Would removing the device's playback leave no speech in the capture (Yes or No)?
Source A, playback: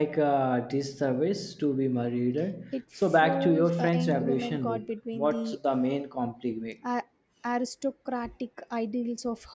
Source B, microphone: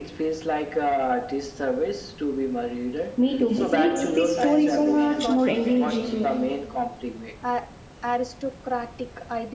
No